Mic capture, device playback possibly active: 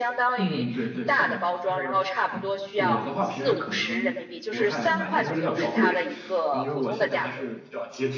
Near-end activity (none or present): present